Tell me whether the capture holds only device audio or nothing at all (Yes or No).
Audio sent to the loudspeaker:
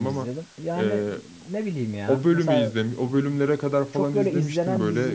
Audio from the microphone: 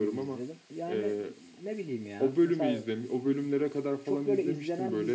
Yes